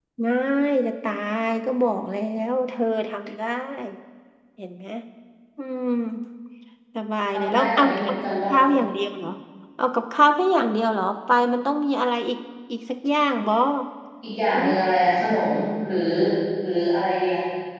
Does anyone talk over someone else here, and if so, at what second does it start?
7.3 s

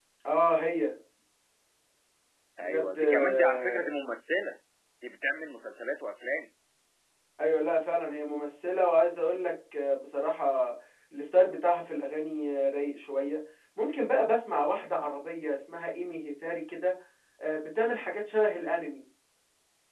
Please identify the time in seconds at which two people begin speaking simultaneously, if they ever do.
2.6 s

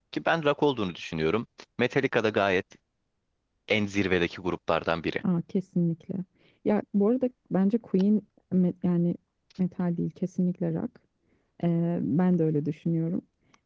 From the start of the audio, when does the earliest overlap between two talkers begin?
none

